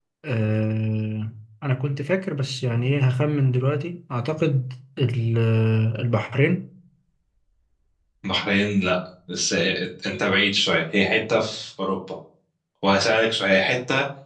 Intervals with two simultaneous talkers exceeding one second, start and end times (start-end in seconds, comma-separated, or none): none